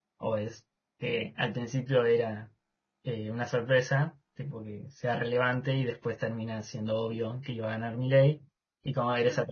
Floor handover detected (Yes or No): No